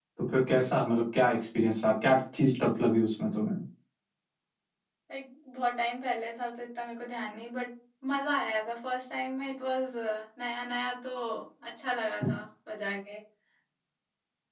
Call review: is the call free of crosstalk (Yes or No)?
Yes